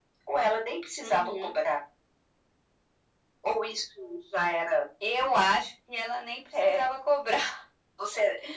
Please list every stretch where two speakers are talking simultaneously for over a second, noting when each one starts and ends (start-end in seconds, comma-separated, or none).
none